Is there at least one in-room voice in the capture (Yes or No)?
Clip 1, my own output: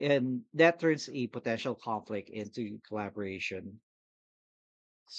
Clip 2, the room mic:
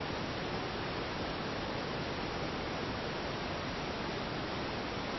No